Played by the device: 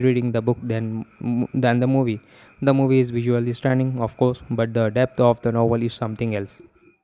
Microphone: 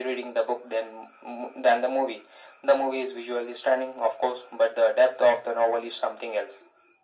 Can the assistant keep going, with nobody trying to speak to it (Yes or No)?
Yes